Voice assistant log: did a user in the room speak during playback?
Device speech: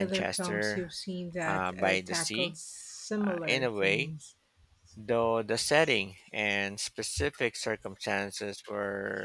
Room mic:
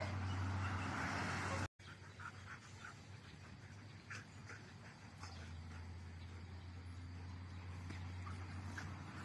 No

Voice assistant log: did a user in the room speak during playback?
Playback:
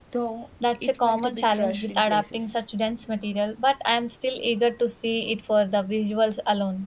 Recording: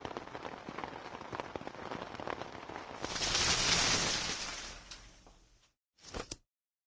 No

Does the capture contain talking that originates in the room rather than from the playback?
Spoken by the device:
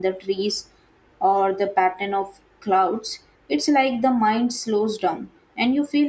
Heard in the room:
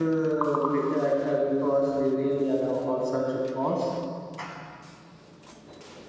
Yes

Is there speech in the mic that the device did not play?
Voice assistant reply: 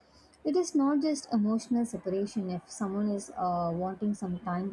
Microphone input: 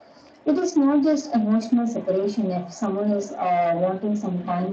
No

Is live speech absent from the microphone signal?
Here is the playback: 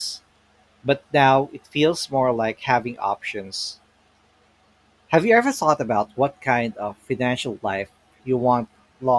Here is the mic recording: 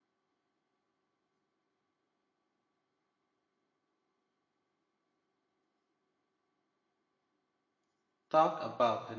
No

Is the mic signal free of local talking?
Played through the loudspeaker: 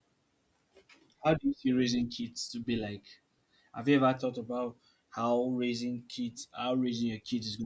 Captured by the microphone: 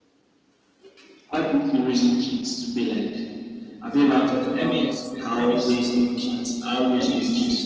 No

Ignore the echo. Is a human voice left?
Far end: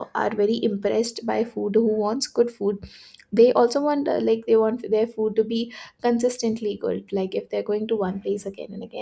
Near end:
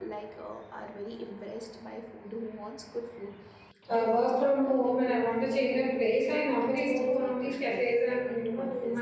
Yes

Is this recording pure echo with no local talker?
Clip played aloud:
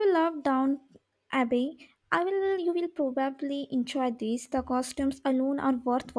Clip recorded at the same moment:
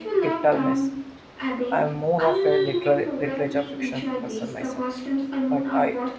No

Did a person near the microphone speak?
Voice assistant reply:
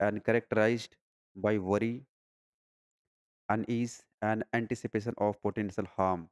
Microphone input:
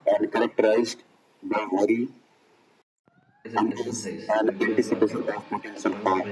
Yes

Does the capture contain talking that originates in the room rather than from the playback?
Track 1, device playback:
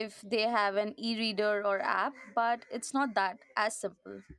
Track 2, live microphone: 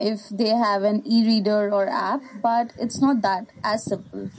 No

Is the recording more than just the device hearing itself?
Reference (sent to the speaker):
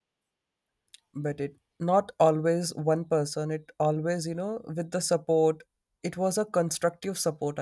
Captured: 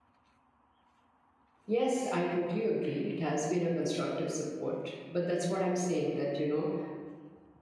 Yes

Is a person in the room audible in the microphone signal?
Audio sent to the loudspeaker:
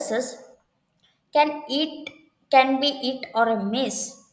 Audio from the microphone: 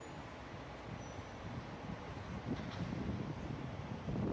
No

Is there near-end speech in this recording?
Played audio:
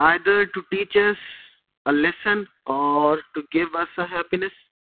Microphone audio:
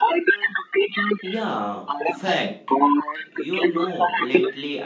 Yes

